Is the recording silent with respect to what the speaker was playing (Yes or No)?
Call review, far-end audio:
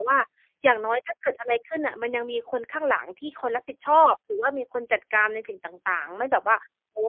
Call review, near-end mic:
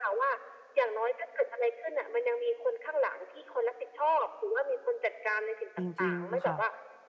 No